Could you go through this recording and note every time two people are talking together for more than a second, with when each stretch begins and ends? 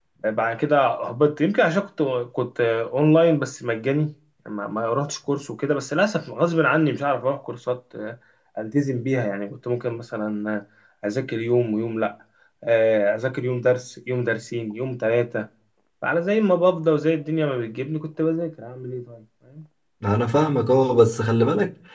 none

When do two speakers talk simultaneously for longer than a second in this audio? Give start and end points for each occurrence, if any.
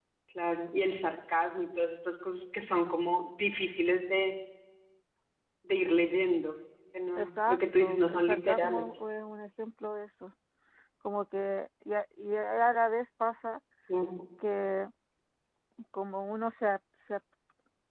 7.2-8.9

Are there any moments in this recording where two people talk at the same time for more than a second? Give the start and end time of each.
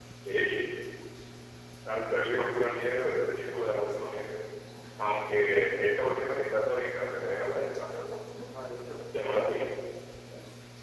none

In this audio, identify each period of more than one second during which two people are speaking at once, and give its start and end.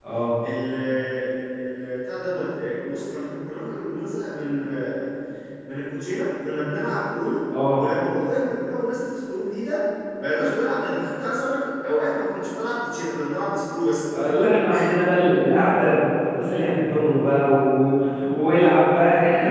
none

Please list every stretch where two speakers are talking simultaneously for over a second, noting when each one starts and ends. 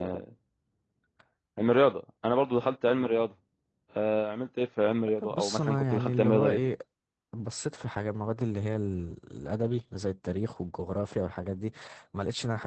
5.2-6.6

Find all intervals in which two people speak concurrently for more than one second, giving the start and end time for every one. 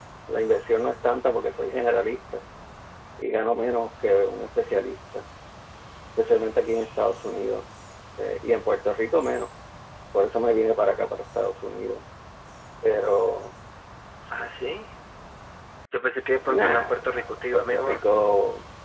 16.6-18.0

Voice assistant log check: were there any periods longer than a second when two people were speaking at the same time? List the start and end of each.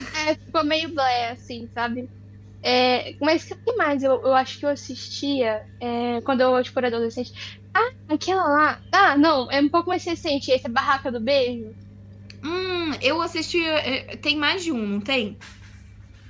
none

